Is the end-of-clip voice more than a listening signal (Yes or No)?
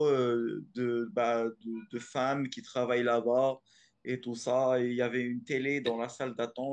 No